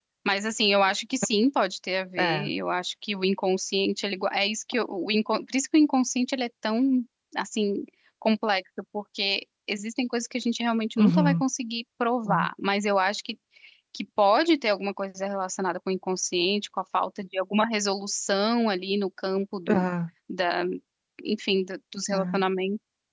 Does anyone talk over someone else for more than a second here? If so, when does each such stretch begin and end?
none

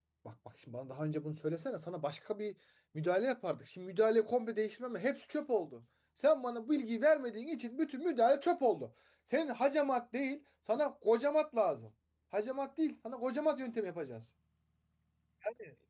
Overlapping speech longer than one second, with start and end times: none

